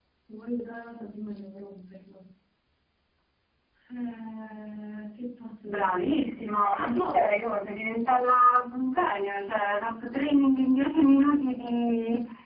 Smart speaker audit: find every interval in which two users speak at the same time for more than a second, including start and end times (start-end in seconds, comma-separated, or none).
5.6-7.3